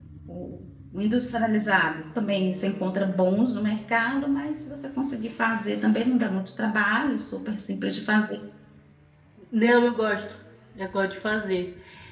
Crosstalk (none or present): none